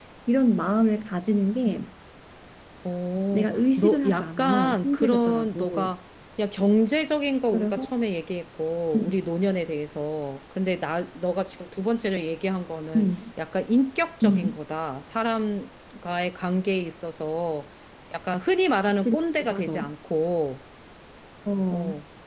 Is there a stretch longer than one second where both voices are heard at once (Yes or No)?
Yes